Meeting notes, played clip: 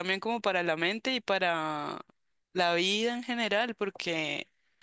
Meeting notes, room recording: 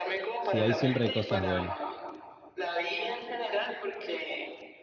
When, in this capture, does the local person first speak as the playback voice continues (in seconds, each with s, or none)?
0.4 s